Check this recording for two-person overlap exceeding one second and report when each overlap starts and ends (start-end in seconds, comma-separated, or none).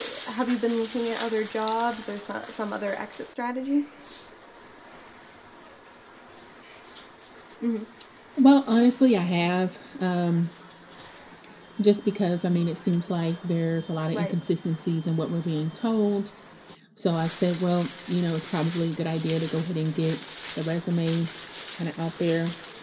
none